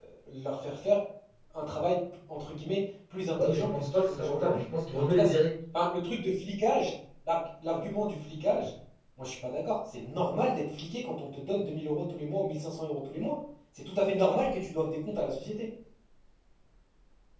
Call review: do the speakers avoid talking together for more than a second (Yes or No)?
No